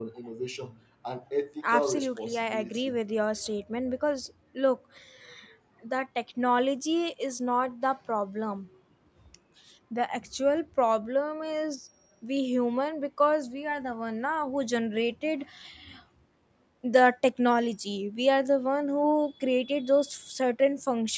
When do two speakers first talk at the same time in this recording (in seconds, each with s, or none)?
1.6 s